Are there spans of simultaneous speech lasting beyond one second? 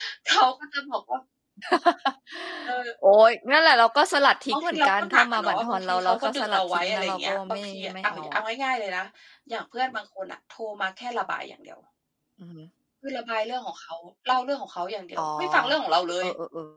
Yes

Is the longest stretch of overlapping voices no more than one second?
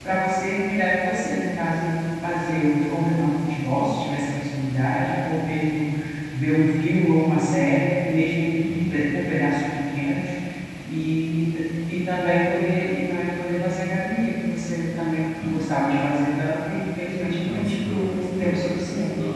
No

